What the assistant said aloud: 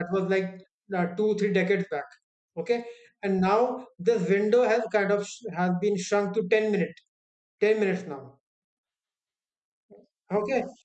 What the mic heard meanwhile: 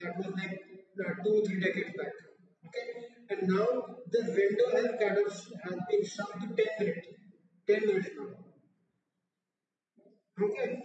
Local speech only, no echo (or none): none